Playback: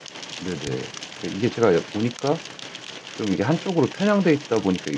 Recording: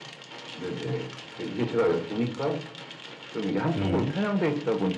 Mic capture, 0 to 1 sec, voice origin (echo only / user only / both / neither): echo only